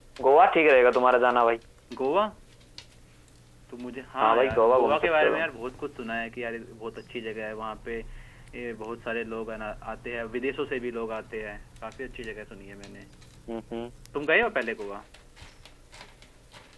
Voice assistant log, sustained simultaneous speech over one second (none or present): present